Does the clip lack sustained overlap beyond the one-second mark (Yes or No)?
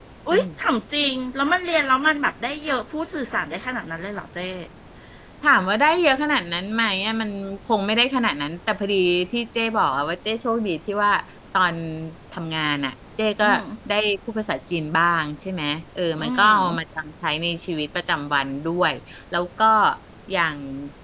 Yes